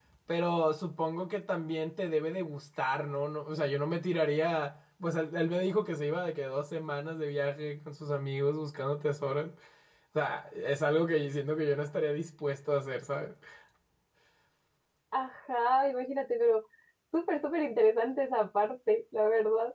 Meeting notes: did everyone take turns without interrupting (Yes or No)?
Yes